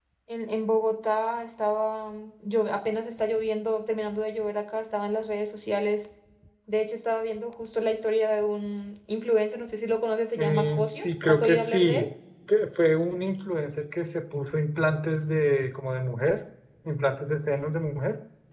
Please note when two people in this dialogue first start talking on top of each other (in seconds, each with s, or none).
10.4 s